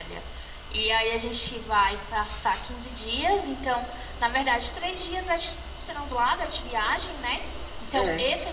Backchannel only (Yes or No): Yes